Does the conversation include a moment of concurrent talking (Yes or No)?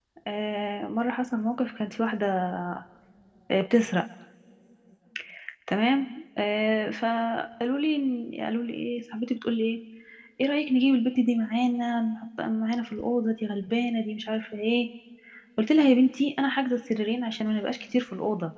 No